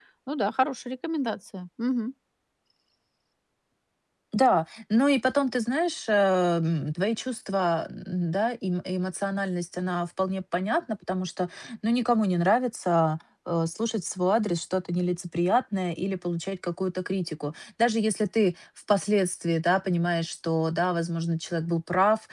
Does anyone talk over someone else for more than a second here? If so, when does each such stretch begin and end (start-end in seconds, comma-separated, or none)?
none